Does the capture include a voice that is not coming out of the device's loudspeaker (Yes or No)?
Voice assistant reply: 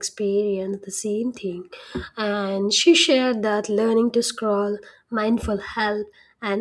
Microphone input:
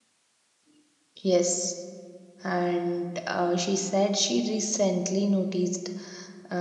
Yes